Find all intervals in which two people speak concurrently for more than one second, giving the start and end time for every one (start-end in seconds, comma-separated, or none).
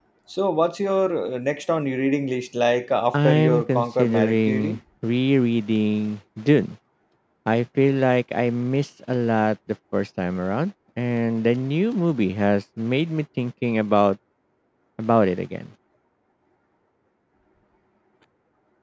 3.1-4.8